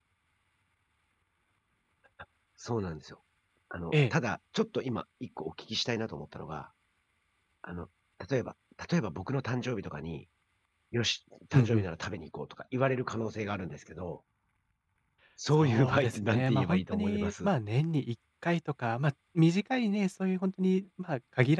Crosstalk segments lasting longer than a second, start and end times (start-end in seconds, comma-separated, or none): 15.6-17.5